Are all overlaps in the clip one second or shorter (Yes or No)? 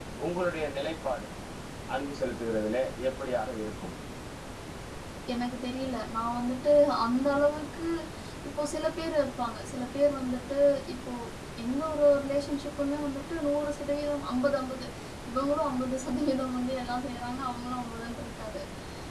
Yes